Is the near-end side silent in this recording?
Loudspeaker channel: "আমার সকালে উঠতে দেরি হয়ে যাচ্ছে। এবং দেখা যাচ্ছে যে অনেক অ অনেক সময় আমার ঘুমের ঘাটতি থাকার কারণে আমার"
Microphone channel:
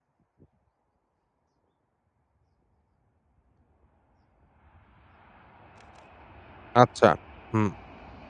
No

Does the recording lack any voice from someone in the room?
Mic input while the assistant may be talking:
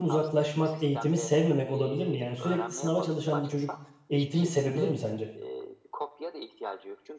No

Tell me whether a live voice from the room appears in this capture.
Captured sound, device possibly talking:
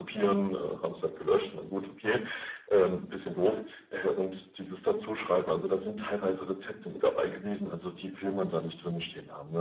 No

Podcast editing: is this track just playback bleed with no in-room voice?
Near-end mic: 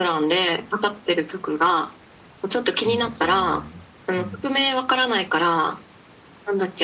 No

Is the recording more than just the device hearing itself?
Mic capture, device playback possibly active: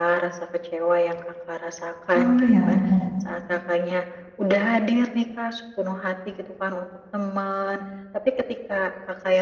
Yes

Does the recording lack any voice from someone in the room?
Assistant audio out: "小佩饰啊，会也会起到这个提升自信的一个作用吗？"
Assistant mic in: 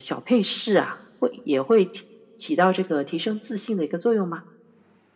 Yes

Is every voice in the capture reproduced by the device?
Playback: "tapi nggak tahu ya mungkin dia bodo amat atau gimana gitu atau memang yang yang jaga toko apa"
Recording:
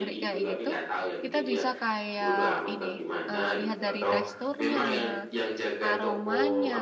No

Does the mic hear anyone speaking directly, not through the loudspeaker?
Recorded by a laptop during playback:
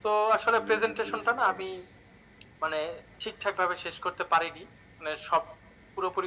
Yes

